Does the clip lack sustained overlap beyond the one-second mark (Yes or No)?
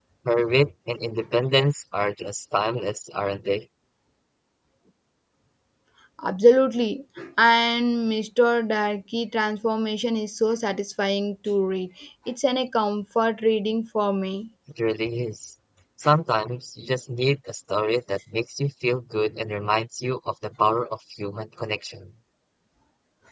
Yes